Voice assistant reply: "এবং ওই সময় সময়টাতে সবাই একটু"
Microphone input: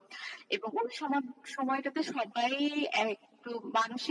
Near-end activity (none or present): none